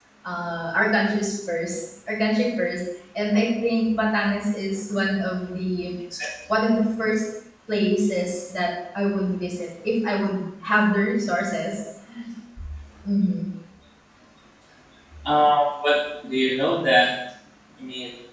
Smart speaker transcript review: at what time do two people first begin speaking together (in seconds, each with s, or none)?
none